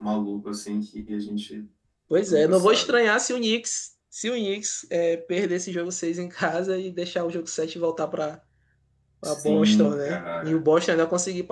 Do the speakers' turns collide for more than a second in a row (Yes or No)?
Yes